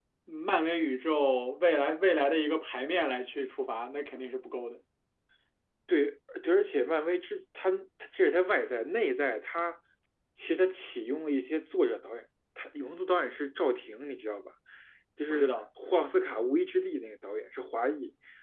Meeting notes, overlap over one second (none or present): none